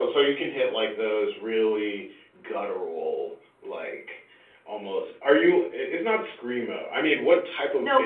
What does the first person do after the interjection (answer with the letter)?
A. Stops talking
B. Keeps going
A